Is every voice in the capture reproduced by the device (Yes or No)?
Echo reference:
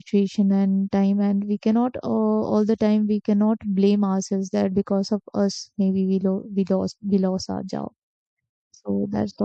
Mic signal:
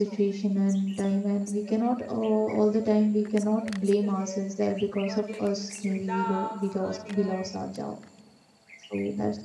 No